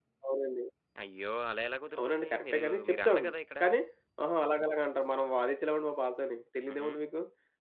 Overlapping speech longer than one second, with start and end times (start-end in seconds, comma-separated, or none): 2.0-3.2